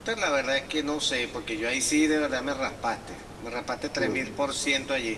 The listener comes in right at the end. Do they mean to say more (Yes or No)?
No